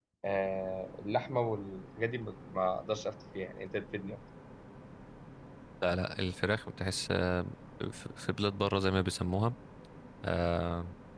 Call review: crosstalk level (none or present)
none